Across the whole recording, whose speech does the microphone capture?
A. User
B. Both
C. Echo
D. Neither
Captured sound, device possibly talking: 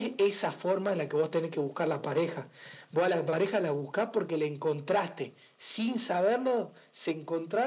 C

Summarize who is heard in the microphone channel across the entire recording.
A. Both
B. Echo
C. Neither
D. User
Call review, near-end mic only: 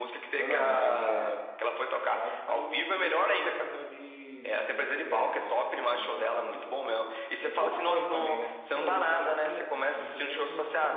A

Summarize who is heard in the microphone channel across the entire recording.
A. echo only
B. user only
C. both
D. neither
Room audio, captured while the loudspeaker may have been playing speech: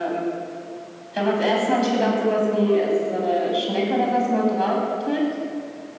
A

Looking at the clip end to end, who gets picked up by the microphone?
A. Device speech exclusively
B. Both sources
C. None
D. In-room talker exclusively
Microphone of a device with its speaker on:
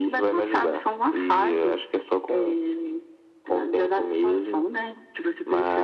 A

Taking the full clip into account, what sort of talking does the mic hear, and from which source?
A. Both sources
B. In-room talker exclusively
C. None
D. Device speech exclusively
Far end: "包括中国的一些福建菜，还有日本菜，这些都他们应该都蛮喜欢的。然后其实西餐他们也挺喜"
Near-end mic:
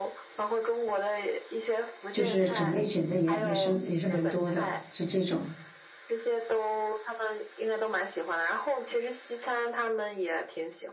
A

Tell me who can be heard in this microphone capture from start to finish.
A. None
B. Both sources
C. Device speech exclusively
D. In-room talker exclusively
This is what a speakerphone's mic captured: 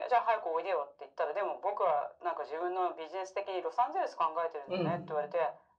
B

